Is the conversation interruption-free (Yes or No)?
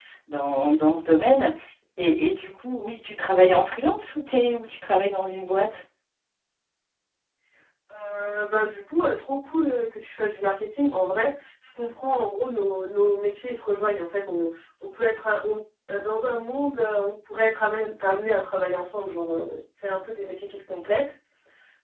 Yes